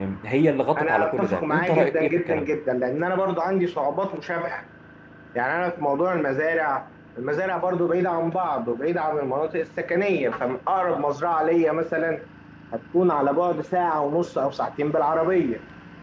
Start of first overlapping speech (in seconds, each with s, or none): 0.8 s